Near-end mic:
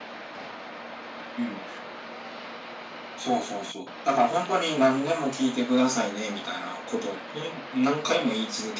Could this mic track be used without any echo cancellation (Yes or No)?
No